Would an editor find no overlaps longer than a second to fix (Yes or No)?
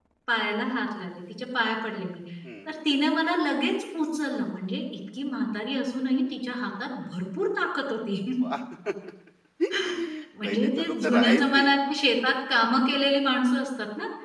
No